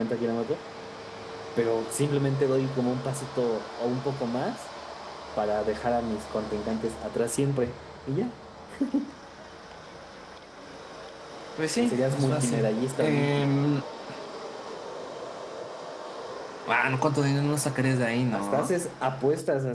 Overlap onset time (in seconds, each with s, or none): 11.8 s